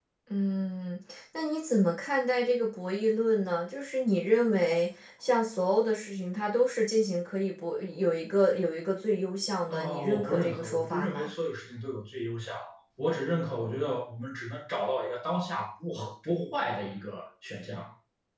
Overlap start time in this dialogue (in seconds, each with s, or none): 9.7 s